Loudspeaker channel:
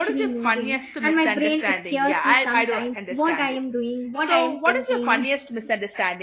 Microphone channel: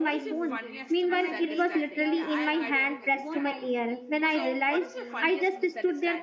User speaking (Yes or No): Yes